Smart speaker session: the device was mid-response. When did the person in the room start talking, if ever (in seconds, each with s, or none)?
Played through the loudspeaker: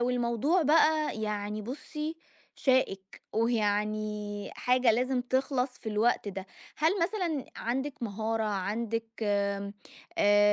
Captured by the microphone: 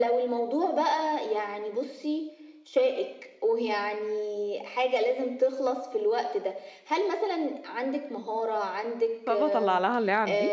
9.3 s